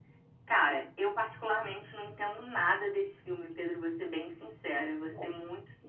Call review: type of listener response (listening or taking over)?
listening